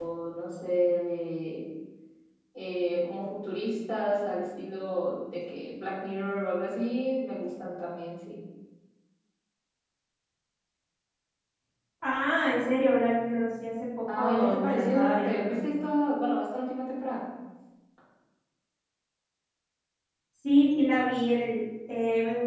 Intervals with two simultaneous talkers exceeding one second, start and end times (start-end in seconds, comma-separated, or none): 14.2-15.7